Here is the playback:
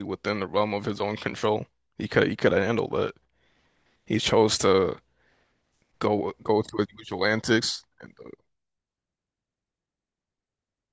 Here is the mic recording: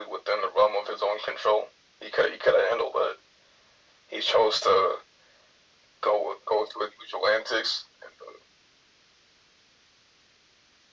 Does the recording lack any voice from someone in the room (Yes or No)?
Yes